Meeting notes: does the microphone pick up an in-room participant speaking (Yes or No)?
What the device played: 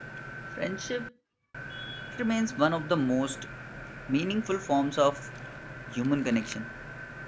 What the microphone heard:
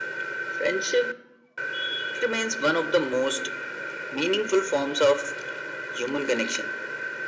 No